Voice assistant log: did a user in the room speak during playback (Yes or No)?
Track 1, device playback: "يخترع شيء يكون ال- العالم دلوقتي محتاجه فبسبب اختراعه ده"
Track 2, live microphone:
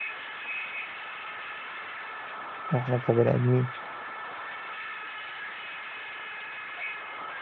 Yes